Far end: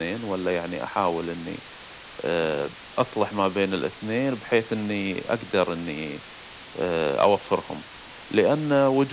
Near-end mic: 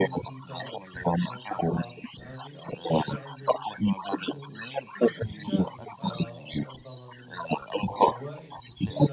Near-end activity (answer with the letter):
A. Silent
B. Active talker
B